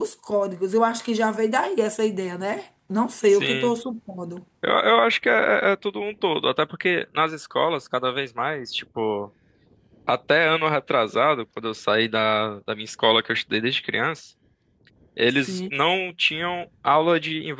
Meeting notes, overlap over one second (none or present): none